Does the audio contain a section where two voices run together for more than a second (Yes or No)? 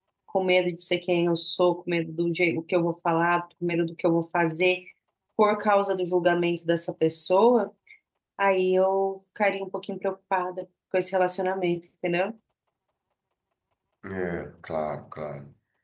No